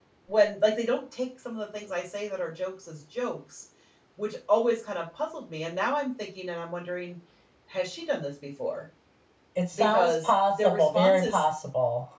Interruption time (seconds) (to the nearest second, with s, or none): 10 s